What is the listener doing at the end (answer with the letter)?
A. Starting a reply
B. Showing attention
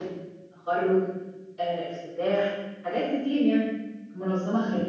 A